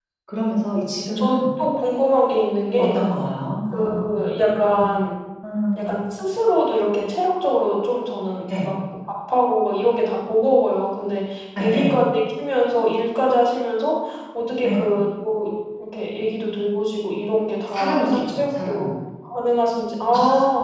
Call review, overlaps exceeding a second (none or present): present